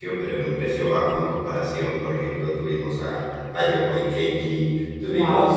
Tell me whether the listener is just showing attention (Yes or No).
Yes